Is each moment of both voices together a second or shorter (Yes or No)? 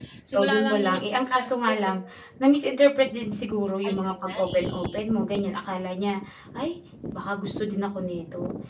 No